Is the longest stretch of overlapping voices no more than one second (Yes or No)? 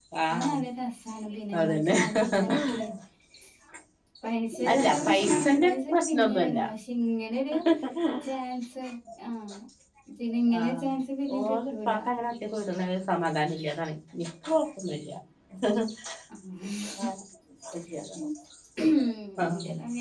No